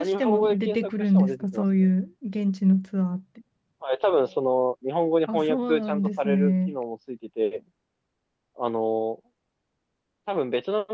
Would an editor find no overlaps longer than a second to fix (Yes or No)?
No